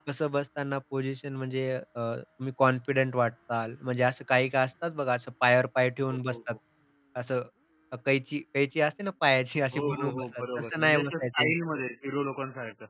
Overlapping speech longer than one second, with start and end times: 9.7-11.5

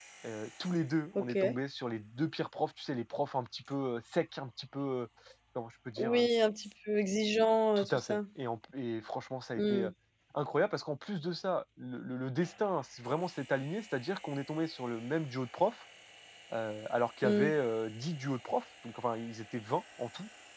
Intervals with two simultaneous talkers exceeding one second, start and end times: none

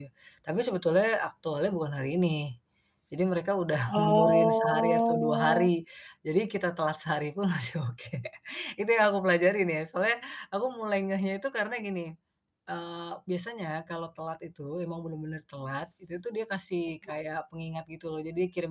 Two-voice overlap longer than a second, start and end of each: 3.9-5.7

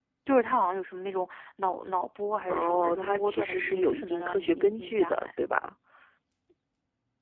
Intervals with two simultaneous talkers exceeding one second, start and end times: 2.5-5.3

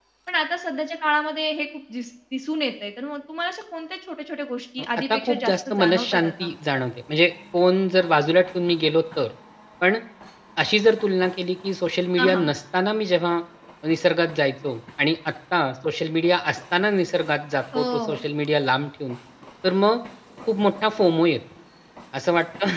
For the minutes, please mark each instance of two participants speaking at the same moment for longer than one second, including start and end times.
5.1-6.5

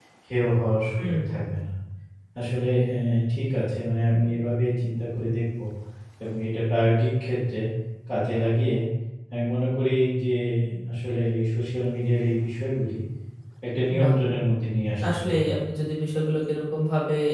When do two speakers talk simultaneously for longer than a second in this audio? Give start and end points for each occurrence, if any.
none

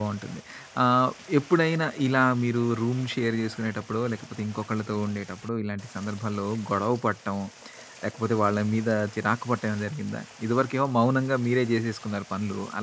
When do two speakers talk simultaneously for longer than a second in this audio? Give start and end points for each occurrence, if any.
none

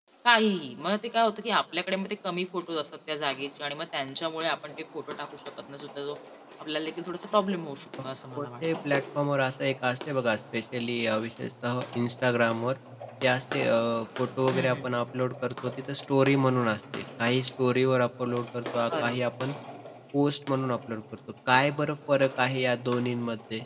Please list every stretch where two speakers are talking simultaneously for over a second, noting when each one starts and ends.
none

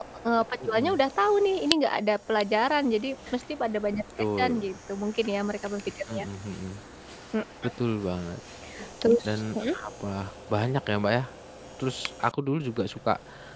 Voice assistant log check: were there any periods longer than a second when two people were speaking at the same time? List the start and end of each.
none

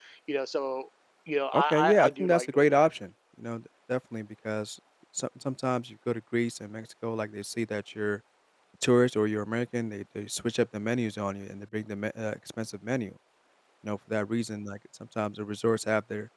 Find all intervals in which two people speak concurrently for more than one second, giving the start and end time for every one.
1.5-2.9

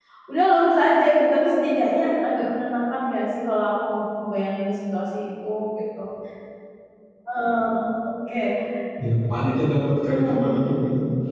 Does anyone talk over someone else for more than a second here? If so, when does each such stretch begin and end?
none

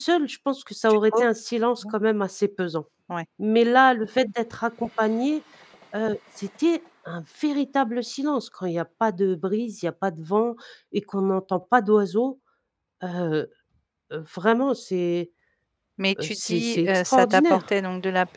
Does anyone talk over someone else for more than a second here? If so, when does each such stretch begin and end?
16.2-17.6

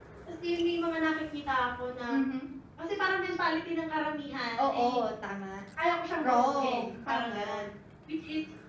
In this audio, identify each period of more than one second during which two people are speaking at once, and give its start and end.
6.2-7.7

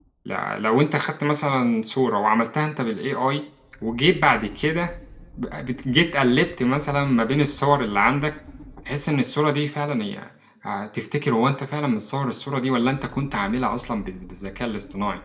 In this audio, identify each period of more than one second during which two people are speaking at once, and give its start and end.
none

